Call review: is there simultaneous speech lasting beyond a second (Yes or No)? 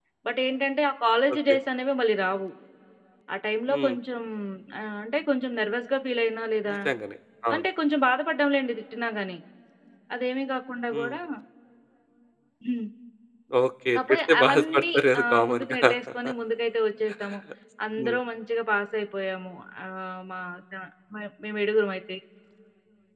Yes